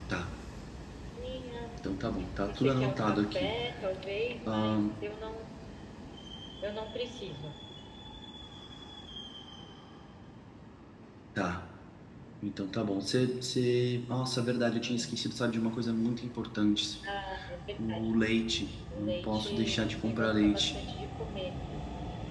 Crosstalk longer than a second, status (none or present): present